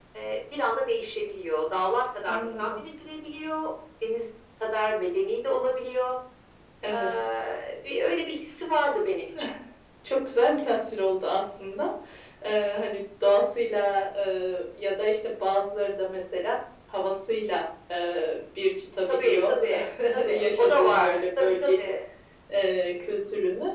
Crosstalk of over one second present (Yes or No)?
Yes